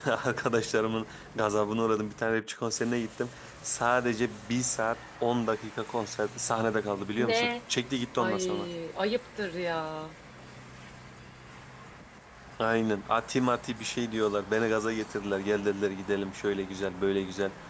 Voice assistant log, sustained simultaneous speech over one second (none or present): none